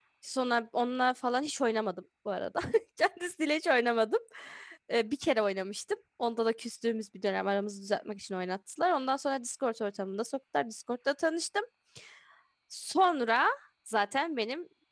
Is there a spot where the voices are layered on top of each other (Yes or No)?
No